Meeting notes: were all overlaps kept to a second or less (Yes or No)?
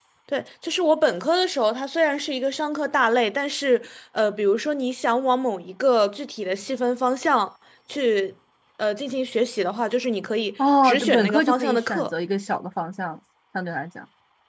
No